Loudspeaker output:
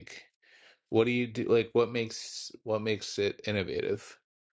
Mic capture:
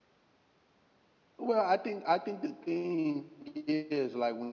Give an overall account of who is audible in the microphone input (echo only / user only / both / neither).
user only